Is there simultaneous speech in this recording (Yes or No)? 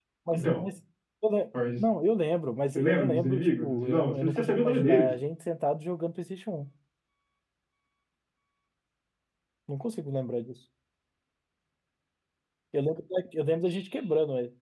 Yes